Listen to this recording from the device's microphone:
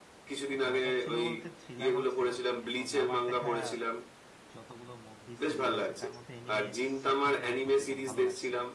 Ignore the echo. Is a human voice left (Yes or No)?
Yes